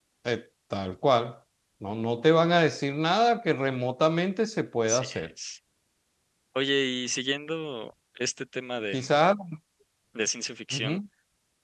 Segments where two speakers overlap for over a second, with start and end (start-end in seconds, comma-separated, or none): none